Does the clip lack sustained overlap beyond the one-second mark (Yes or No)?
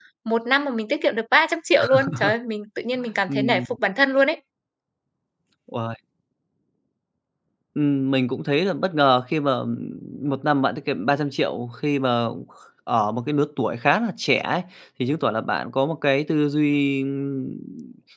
Yes